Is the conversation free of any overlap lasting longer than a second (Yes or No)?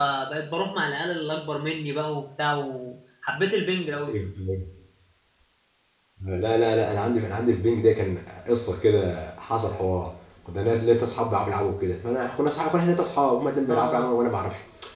Yes